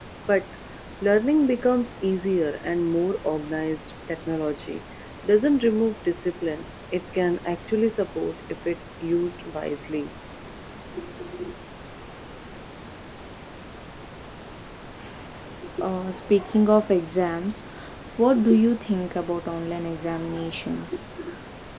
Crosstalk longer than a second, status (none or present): none